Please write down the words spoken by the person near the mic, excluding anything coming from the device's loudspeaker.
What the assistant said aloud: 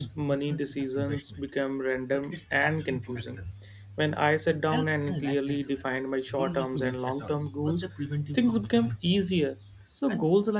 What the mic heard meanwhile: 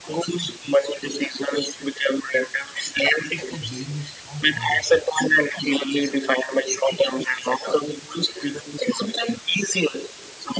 It's like building a strong foundation

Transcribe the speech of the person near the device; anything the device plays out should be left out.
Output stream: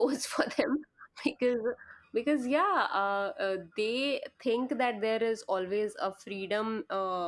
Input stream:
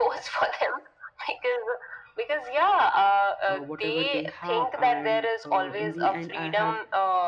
uh, whatever they have and uh, in the end i have

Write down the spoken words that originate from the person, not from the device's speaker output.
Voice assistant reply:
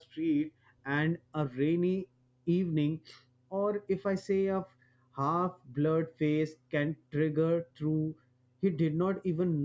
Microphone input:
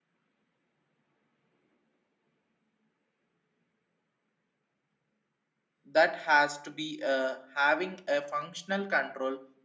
that has to be uh, having a functional control

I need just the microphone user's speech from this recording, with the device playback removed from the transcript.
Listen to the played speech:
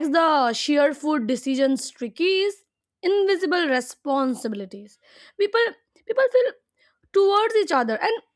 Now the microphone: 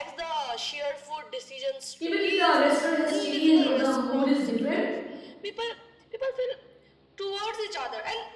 even if the restaurant has changed or the mood is different,

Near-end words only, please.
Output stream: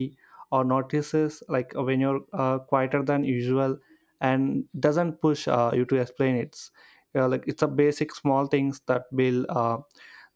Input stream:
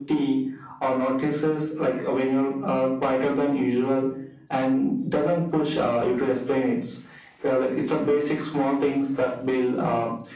none

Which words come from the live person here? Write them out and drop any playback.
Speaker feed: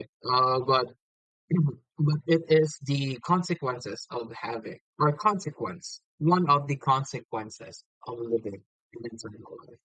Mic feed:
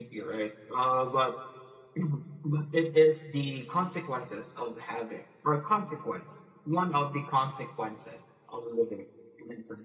none

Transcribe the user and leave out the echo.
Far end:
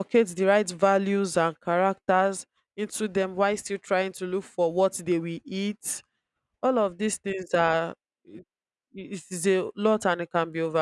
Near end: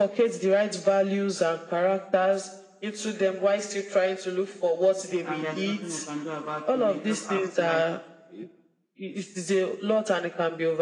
and there's nothing we can do about it. We just have to like

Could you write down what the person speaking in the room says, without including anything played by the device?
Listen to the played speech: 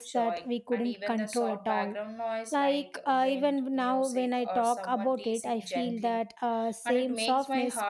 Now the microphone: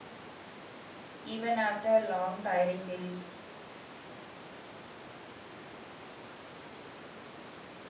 even after long, tiring days.

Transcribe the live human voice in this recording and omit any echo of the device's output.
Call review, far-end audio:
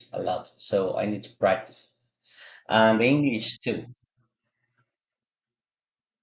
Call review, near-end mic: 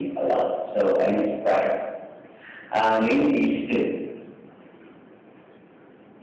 none

